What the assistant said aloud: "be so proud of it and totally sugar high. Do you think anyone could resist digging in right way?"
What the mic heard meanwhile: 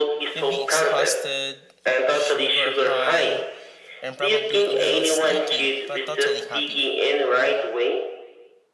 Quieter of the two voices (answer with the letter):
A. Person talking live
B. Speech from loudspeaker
A